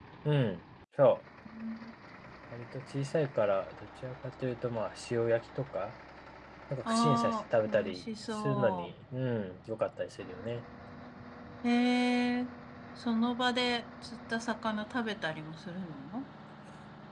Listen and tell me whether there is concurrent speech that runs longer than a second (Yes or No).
Yes